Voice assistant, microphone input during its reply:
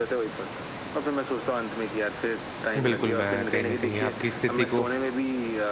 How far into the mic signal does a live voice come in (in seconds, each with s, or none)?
2.8 s